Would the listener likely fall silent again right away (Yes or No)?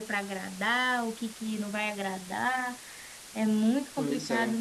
Yes